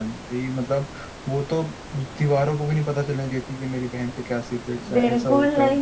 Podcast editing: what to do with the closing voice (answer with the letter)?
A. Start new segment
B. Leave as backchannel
A